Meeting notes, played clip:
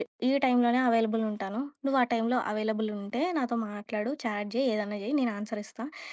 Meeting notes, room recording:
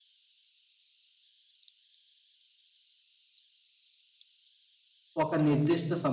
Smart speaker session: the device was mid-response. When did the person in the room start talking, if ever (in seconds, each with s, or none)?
5.2 s